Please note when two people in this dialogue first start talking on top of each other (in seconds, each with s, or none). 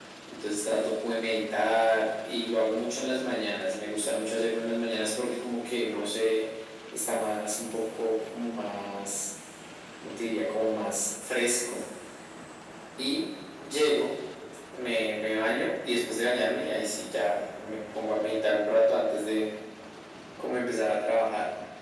none